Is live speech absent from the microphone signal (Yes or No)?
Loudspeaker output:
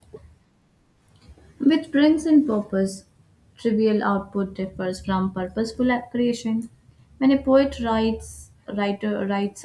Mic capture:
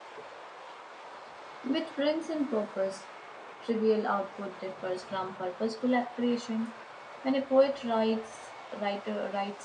Yes